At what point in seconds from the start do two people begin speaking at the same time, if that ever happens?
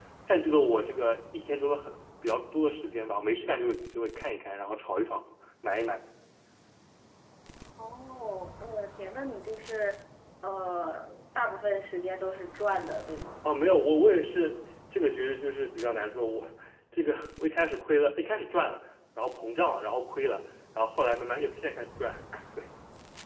none

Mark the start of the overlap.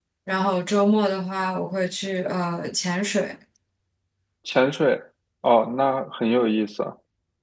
none

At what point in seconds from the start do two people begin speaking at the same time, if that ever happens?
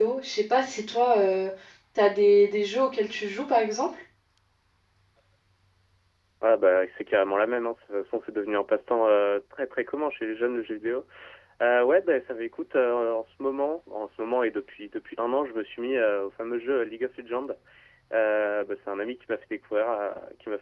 none

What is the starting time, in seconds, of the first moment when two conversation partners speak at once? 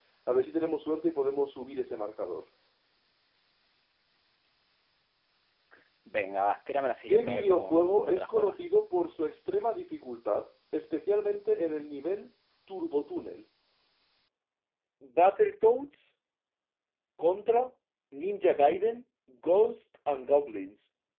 7.1 s

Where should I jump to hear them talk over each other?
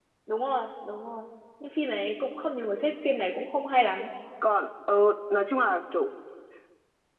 none

